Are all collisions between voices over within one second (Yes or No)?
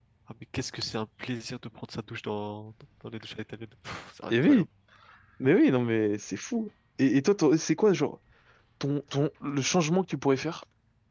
Yes